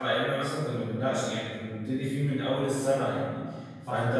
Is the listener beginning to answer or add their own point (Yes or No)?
No